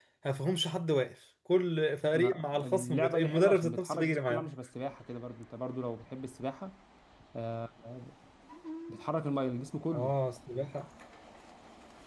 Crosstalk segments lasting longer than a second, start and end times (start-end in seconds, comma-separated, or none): 2.1-4.5